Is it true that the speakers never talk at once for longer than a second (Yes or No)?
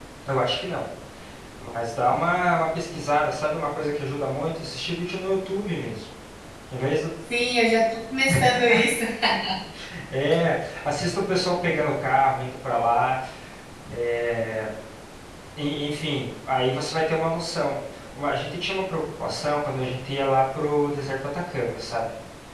Yes